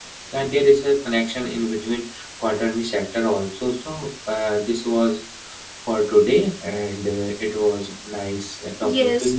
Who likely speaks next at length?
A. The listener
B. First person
A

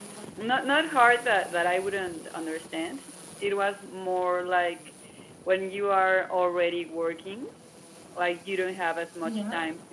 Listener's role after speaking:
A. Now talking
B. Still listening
B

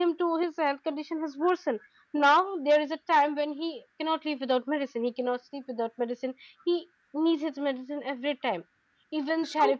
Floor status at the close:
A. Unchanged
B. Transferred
A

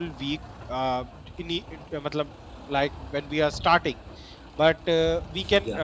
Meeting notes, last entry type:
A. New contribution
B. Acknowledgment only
B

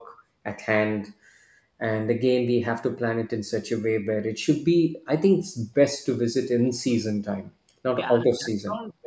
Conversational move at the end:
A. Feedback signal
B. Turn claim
B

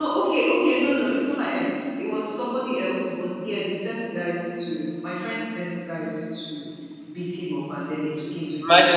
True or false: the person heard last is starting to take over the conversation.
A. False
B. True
B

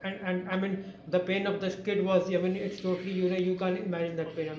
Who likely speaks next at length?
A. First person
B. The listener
A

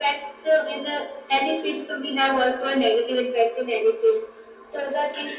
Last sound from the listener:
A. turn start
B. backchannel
B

